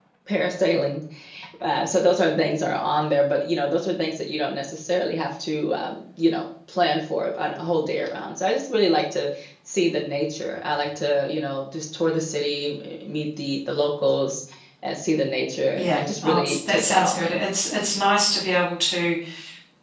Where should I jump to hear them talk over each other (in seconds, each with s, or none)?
15.7 s